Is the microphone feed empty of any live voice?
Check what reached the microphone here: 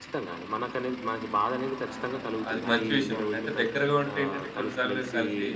No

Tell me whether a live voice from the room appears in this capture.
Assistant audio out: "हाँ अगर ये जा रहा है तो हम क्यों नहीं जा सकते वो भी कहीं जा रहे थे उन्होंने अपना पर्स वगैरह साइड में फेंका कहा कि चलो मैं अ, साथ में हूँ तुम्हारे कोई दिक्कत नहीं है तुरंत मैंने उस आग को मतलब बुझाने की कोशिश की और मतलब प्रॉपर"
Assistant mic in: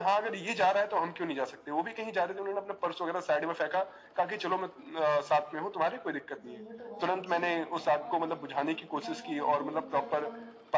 Yes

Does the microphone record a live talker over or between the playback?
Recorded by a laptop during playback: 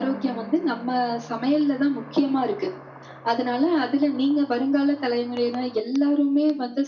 No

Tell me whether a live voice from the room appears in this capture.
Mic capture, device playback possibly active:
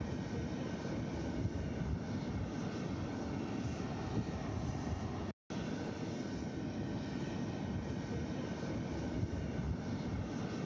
No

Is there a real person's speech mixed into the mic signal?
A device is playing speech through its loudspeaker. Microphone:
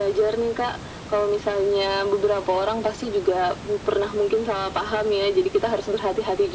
No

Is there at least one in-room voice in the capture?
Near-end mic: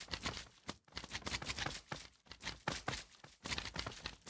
No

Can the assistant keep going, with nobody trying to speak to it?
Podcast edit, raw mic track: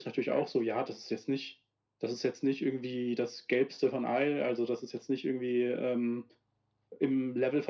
Yes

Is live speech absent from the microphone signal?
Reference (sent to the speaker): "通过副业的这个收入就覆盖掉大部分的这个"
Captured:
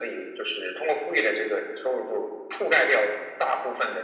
Yes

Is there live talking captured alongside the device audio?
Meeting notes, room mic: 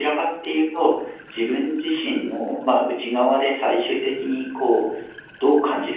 No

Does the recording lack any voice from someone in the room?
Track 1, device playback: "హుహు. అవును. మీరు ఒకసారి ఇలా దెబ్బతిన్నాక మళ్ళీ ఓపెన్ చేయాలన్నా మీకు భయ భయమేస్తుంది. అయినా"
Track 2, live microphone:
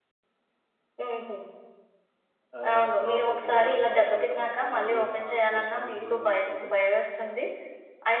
No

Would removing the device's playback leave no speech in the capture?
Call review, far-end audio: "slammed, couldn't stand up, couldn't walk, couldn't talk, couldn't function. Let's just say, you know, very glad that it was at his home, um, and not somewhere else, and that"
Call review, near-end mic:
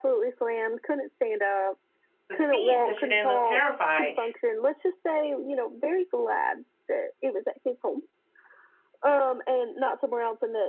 No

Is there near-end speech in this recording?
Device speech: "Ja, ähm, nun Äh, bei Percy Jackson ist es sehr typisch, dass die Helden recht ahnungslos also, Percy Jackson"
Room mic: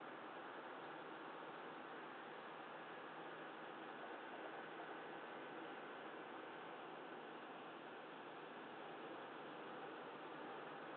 No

